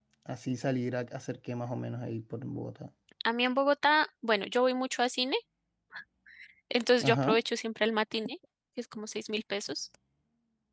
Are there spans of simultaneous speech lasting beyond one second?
No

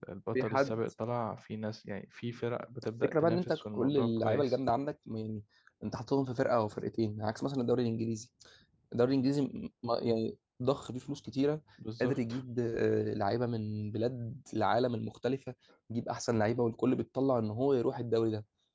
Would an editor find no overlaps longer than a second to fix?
No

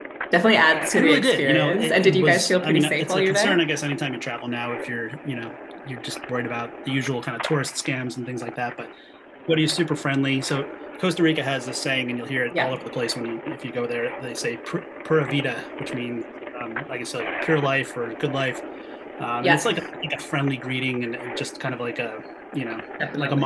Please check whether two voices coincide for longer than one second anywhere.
Yes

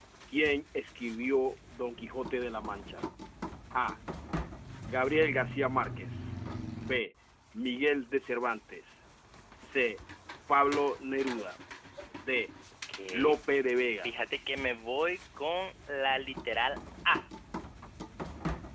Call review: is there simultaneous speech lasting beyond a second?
No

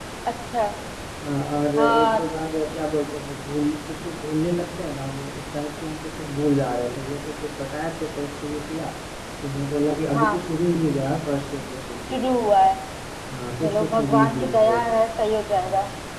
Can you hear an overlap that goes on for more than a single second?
Yes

